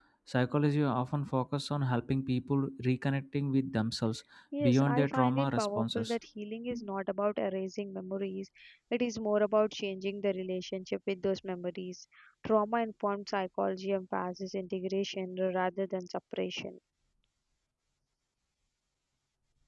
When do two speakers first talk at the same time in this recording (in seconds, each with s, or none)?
4.6 s